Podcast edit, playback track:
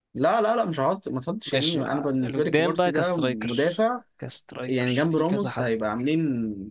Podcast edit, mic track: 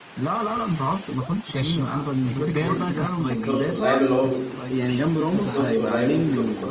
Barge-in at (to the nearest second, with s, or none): 3 s